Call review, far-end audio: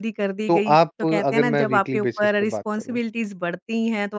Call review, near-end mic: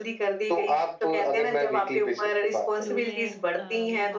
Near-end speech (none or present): present